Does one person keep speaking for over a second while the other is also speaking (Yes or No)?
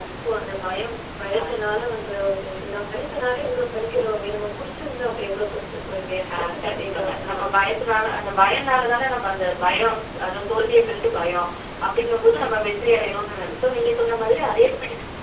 Yes